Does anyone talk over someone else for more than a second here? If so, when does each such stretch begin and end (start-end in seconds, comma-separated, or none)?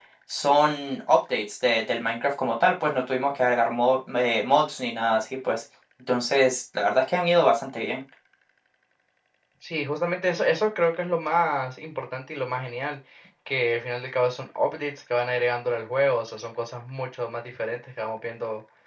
none